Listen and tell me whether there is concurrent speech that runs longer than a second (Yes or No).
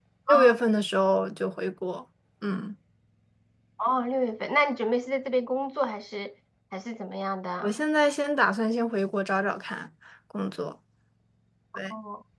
No